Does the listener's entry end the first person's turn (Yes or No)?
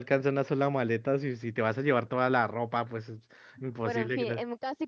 Yes